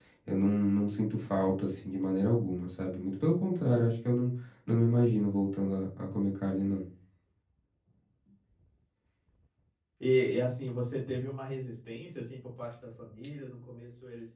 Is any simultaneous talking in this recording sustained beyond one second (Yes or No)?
No